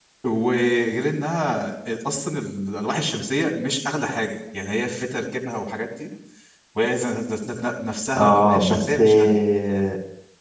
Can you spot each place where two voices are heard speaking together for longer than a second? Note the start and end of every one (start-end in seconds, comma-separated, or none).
8.2-9.4